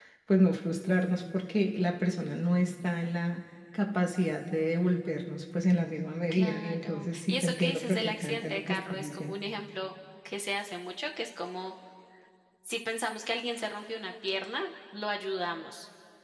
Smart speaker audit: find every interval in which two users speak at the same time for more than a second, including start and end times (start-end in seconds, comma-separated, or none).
6.3-9.3